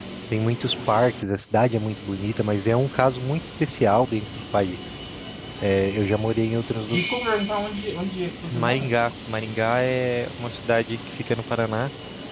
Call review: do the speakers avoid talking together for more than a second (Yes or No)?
Yes